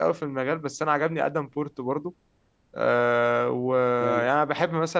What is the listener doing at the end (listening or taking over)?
listening